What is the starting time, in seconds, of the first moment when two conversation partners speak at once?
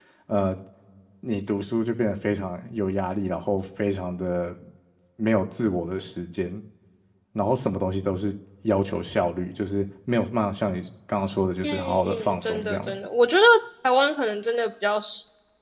12 s

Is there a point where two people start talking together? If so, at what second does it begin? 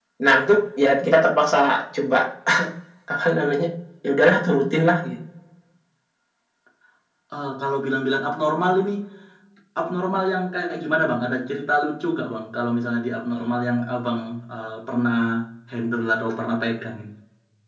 none

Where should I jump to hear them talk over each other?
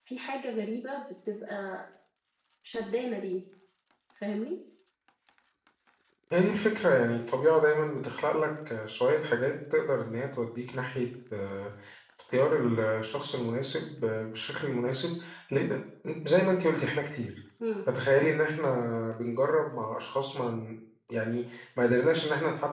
none

